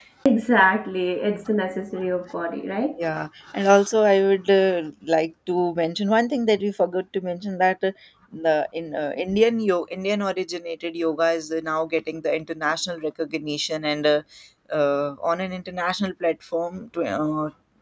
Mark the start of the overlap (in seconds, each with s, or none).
none